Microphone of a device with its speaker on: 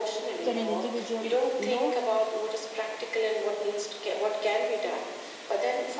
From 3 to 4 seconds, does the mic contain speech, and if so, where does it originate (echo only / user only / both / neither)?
echo only